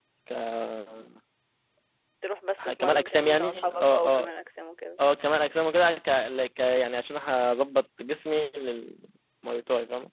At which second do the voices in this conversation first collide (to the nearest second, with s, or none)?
3 s